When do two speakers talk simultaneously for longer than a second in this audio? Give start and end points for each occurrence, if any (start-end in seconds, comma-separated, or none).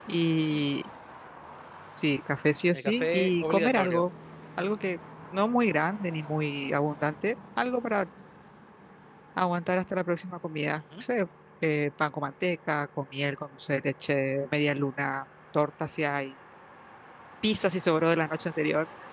2.7-4.0